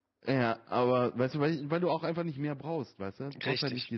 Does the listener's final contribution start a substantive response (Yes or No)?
No